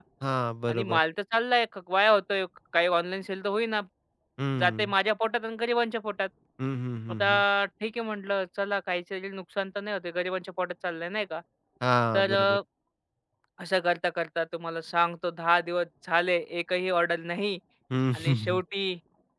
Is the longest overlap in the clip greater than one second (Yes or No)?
No